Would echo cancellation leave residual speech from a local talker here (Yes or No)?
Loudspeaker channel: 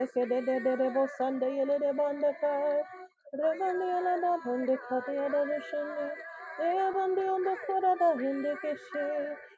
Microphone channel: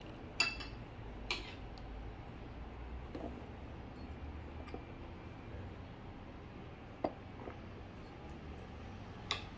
No